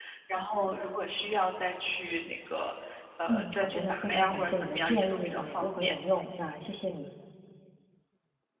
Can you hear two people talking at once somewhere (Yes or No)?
Yes